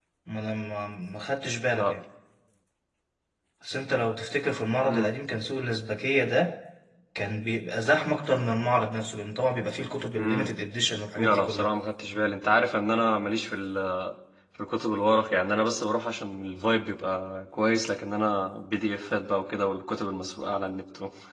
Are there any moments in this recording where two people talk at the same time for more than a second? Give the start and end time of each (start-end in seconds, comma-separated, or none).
none